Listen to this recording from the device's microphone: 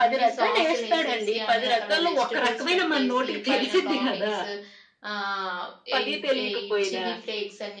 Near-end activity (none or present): present